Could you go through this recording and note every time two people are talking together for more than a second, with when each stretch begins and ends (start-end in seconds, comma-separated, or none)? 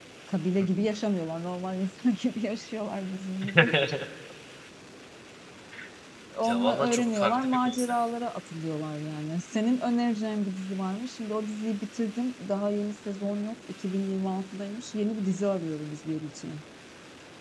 6.5-7.9